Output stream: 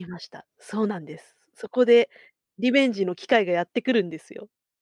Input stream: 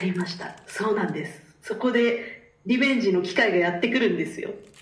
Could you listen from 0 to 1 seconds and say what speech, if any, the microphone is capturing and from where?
echo only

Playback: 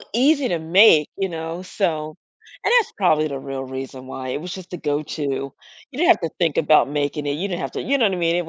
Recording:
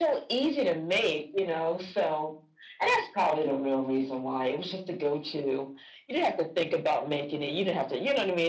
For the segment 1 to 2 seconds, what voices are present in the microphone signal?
echo only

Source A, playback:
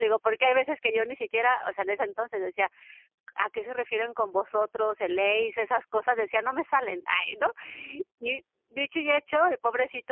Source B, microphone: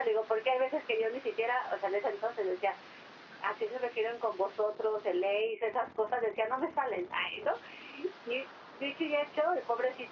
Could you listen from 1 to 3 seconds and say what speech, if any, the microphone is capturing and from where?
echo only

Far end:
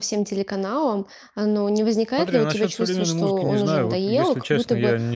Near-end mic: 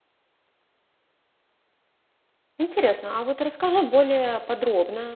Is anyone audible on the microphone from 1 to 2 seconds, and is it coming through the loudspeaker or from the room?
neither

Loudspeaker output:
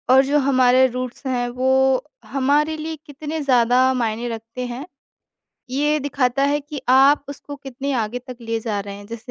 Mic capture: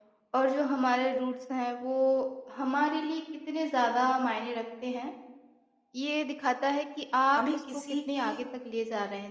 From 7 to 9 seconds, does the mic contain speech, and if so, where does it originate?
both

